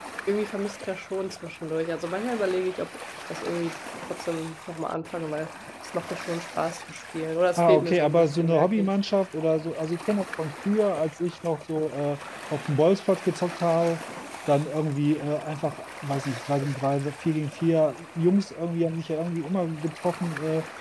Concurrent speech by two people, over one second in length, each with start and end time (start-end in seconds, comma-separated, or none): 7.6-8.9